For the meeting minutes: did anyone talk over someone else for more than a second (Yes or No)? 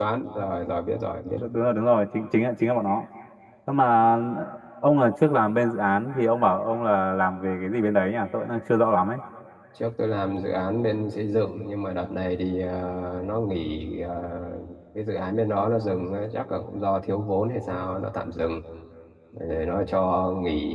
No